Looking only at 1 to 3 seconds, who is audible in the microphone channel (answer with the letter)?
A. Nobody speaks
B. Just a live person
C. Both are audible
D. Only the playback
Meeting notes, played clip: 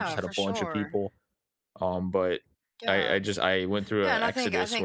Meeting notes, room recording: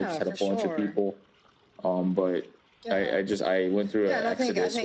D